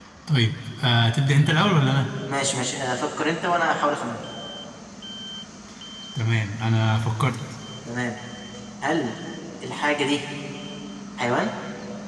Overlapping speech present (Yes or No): No